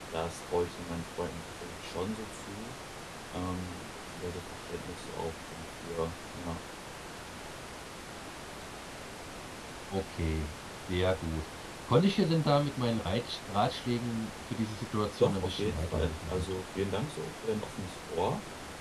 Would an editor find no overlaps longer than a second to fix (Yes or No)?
No